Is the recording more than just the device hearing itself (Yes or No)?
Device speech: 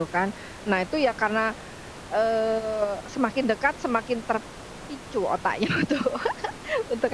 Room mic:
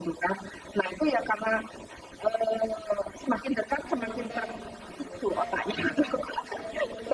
Yes